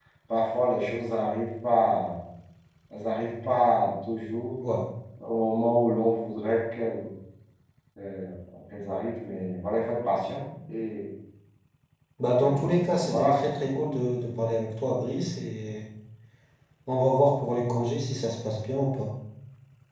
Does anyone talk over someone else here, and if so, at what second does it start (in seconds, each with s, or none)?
12.3 s